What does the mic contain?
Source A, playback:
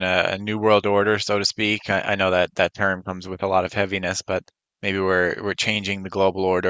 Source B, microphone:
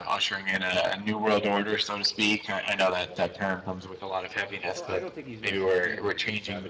both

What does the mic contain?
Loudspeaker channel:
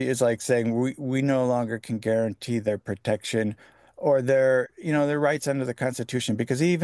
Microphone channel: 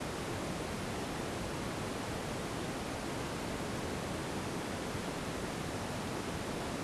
neither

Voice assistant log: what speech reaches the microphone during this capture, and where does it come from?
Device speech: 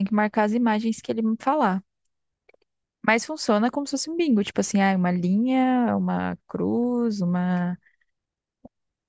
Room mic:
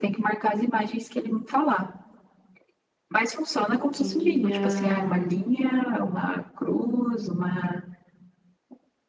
both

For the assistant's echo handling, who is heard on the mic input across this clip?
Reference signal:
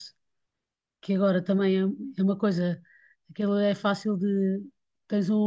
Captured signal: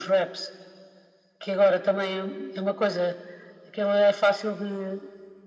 echo only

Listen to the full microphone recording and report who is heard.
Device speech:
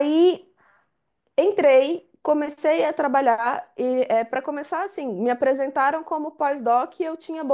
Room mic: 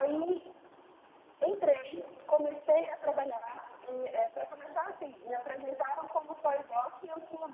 echo only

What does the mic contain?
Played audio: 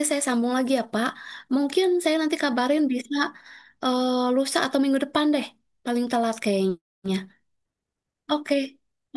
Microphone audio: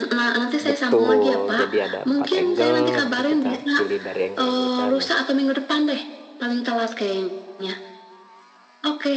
both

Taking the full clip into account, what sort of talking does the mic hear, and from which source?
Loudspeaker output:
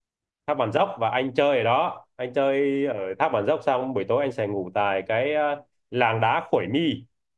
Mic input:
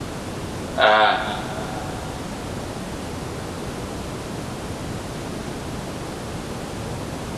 user only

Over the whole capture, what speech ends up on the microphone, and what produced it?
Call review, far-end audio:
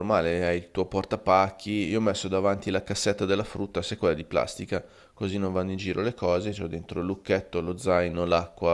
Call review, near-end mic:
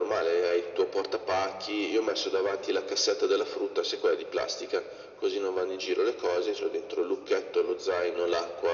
echo only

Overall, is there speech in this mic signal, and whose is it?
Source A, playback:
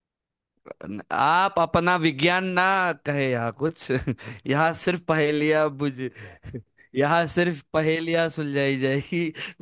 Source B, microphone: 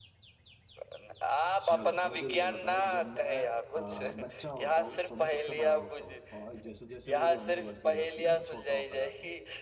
both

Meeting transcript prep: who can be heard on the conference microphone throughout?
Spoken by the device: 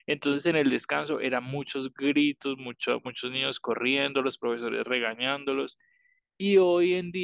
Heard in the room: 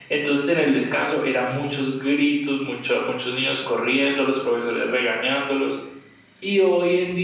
echo only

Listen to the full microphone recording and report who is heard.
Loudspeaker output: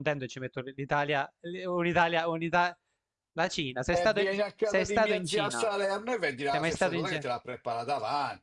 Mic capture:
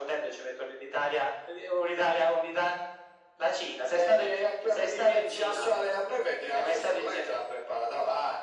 echo only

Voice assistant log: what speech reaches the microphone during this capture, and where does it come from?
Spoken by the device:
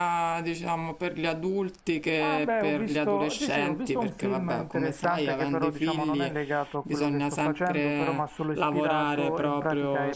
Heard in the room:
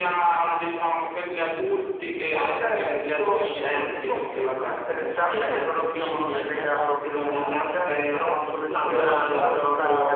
both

